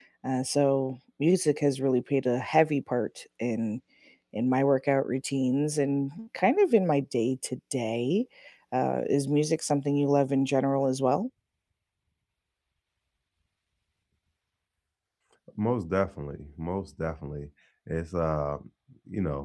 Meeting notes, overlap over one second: none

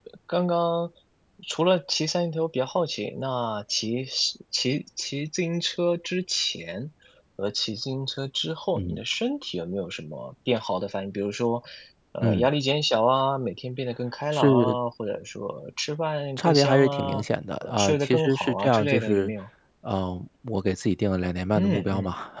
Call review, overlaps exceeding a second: present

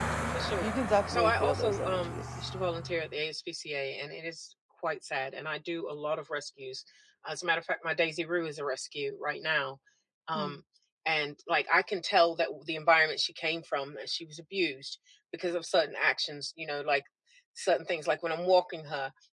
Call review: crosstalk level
present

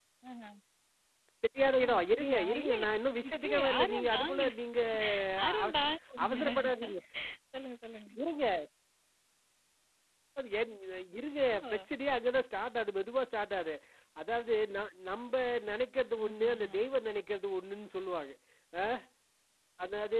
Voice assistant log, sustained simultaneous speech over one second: present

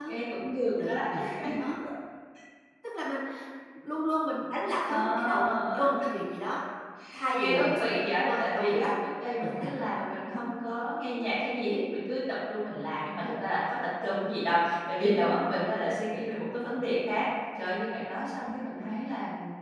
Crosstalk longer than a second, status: present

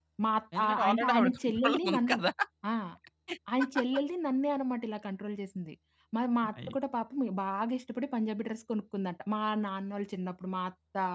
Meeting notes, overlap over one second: present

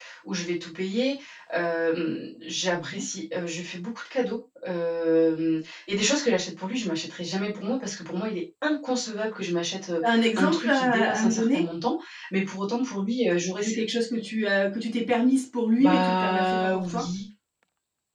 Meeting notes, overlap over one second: present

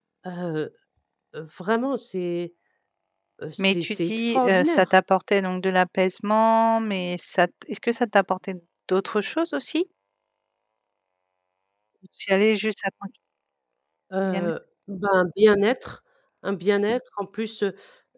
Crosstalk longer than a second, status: present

